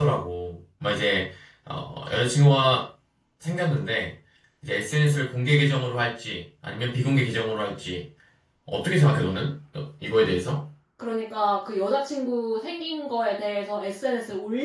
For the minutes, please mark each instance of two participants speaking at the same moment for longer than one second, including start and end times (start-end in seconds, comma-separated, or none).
none